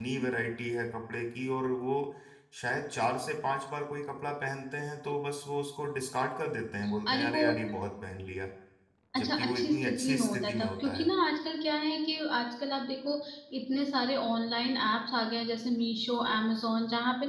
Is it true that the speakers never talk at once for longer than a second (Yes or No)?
No